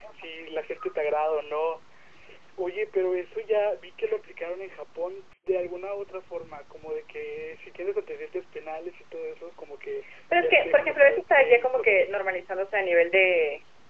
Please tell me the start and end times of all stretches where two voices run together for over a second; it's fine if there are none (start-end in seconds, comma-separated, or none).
10.4-12.3